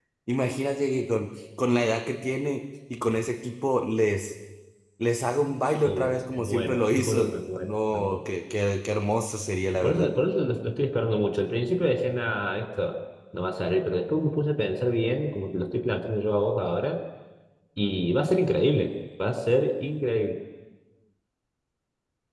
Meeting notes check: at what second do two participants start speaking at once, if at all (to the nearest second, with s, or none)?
6 s